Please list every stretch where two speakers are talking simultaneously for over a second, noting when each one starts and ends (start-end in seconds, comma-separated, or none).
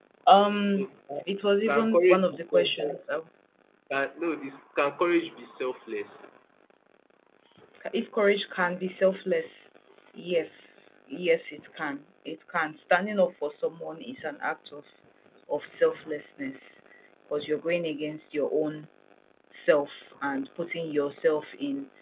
1.7-3.0